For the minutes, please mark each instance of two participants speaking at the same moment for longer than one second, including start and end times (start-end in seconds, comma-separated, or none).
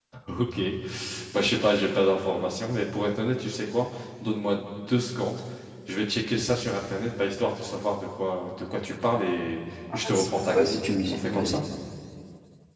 9.9-11.6